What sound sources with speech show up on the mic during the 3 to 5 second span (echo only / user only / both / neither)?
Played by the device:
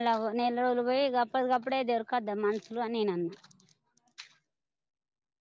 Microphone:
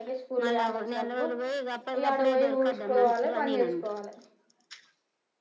both